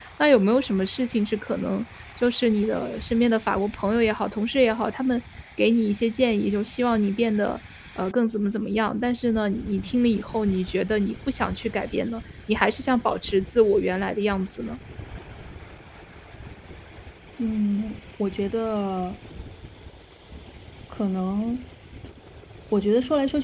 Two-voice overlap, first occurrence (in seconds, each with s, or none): none